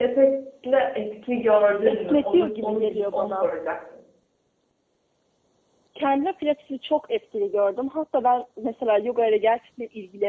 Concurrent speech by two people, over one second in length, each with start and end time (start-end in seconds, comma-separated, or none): 1.9-3.5